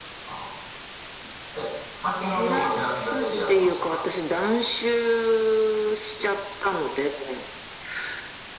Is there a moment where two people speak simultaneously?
Yes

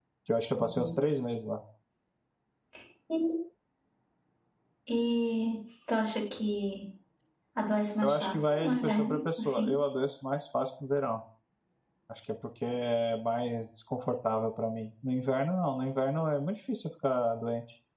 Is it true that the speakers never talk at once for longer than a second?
No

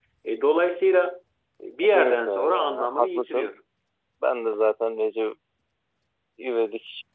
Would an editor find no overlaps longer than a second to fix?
No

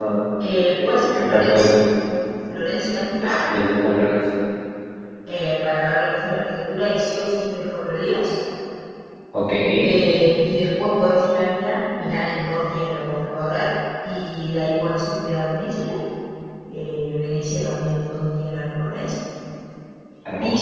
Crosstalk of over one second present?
Yes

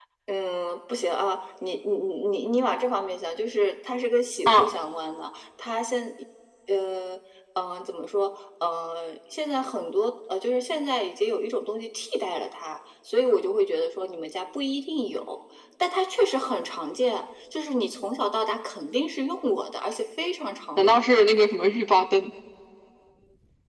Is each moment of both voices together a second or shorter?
Yes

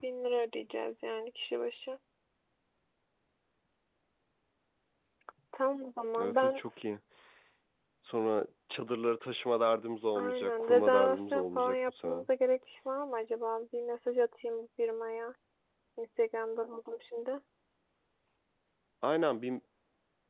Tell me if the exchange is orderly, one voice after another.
No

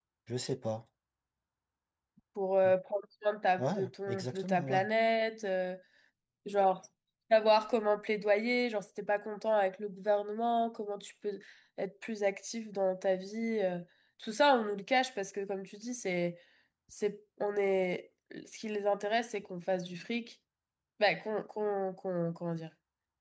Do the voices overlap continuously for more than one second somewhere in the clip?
Yes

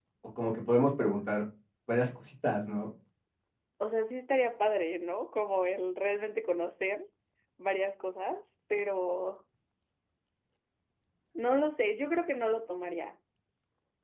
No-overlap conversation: Yes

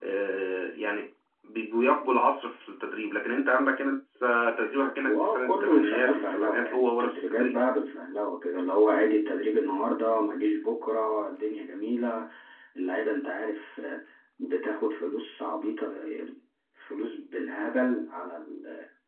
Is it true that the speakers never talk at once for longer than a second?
No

